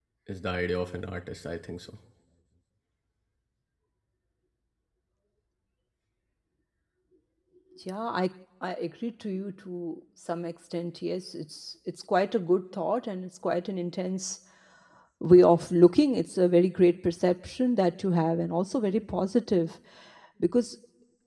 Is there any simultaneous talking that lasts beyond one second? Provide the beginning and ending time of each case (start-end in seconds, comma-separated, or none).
none